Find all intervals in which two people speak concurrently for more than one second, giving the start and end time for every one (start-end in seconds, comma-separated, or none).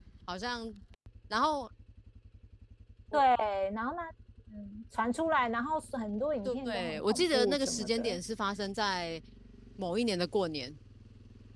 6.6-8.2